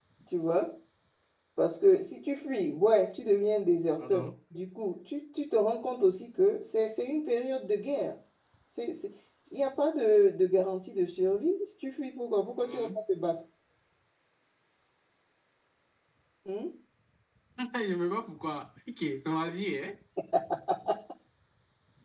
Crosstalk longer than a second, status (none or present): none